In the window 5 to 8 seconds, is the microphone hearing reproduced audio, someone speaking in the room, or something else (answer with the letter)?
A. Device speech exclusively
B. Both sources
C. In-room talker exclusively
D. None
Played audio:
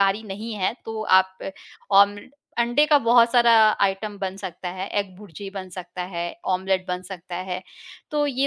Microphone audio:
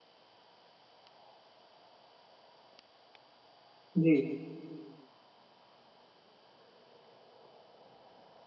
D